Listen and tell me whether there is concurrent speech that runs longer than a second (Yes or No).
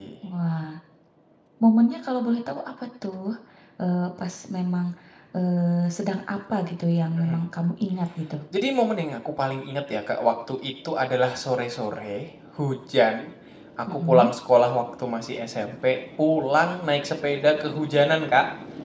No